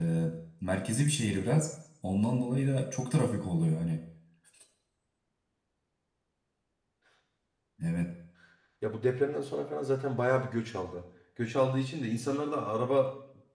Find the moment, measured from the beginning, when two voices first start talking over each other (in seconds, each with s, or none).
none